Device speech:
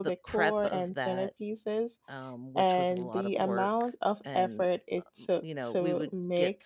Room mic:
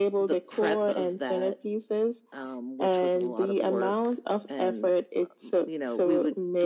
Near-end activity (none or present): none